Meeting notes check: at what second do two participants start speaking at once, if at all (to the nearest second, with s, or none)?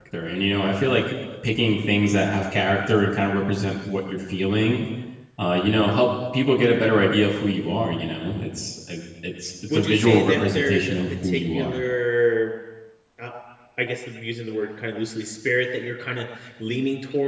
10 s